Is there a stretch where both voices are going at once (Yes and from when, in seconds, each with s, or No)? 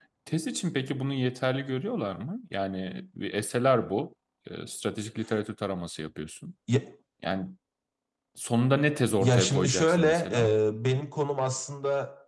Yes, from 9.2 s